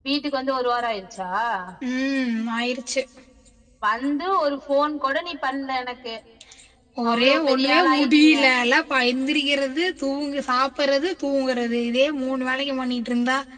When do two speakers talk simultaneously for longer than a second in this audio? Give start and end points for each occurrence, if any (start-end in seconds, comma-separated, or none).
7.1-8.4